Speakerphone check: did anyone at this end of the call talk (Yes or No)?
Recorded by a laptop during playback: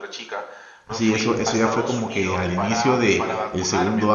Yes